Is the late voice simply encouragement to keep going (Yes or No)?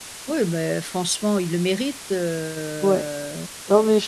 No